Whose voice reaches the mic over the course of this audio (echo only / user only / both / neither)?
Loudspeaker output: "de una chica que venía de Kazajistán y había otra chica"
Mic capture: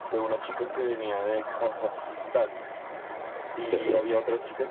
both